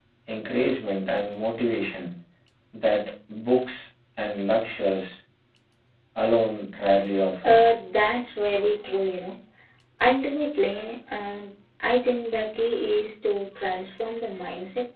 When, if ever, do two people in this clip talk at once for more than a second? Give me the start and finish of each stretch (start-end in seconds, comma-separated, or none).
none